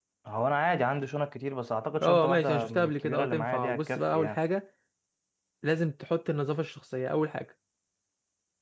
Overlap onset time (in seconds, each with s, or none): 2.0 s